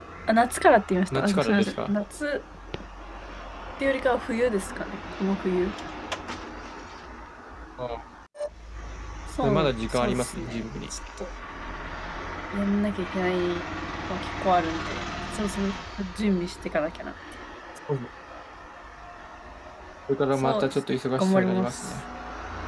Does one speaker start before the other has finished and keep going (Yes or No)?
Yes